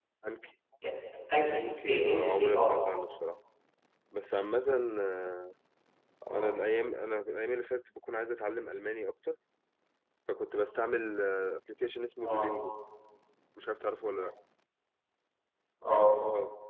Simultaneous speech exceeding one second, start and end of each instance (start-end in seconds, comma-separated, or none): 1.5-2.8